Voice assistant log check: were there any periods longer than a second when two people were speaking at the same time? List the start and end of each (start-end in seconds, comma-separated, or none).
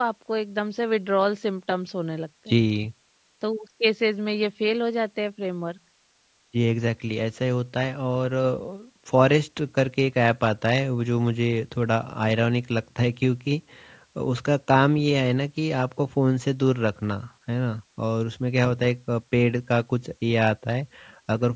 none